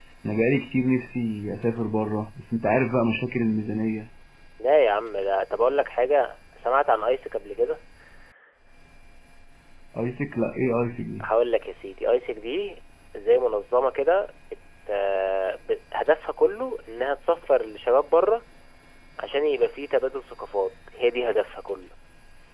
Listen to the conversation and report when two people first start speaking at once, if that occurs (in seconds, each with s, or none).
none